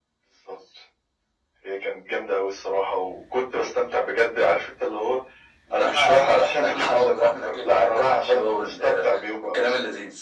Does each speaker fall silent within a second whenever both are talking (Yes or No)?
No